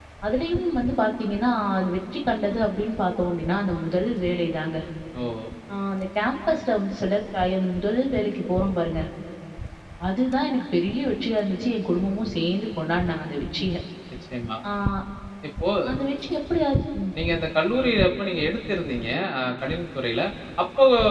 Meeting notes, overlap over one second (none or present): none